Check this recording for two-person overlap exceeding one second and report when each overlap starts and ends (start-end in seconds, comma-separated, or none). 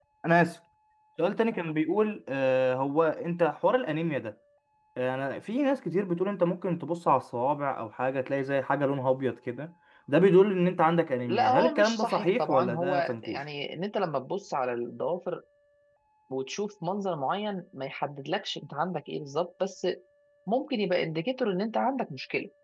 11.2-13.4